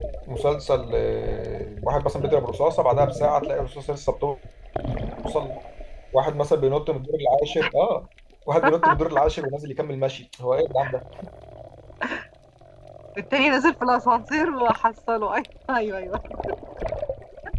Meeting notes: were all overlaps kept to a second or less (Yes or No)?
Yes